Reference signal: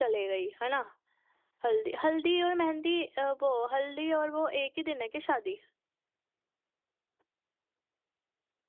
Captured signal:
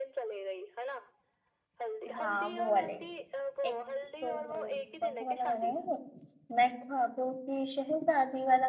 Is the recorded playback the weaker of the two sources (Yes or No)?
Yes